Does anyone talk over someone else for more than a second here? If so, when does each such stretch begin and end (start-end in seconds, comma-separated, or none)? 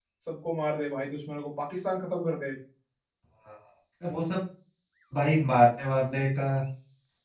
none